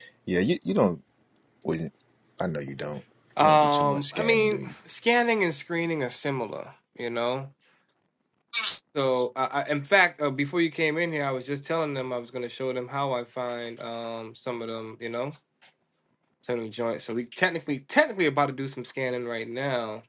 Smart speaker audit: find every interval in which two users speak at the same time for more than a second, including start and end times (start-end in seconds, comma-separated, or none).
3.4-4.7